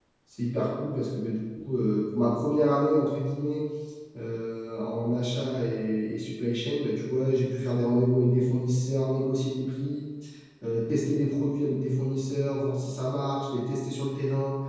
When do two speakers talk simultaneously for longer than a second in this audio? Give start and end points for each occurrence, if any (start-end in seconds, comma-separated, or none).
none